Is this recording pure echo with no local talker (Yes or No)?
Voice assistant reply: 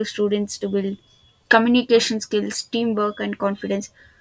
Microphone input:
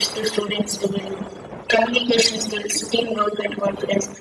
Yes